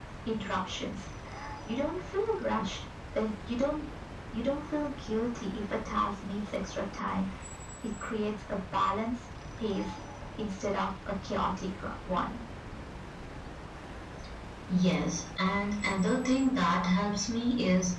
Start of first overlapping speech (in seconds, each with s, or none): none